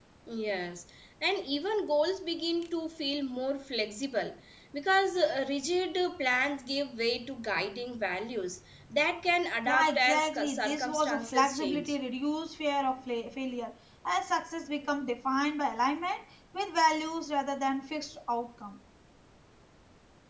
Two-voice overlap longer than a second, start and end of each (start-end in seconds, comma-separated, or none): 9.7-12.0